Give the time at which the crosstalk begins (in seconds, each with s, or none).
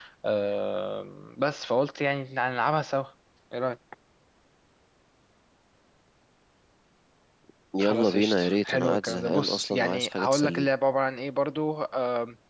7.8 s